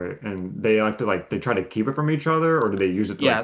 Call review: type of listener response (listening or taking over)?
taking over